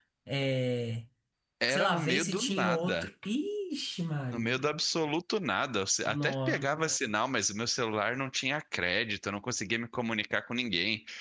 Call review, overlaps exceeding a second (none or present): present